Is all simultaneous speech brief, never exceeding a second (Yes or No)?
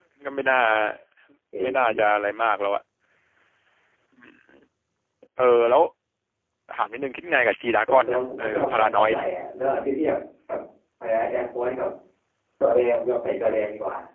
No